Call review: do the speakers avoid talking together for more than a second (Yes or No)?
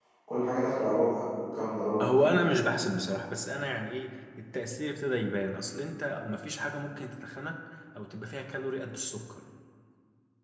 Yes